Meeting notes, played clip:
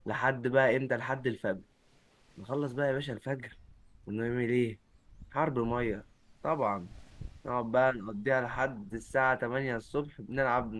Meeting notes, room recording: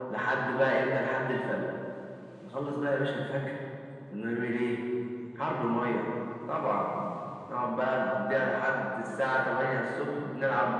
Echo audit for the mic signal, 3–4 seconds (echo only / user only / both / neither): echo only